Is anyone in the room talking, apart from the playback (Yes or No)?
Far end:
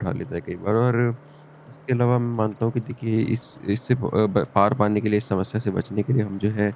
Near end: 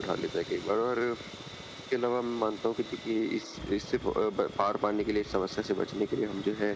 No